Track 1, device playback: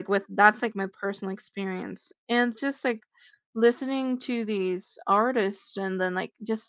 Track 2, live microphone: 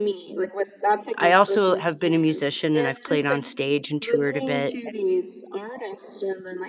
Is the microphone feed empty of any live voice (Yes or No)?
No